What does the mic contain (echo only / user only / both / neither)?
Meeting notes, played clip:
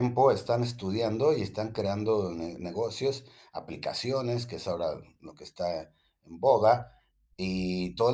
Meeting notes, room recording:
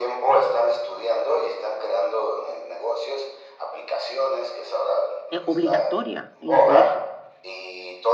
both